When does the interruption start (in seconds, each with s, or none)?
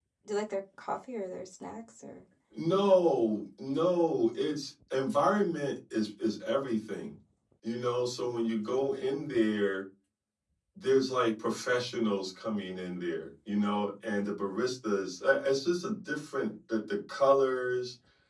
none